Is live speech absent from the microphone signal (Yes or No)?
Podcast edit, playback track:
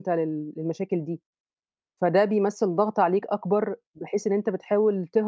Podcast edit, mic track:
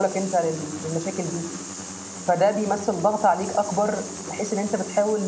Yes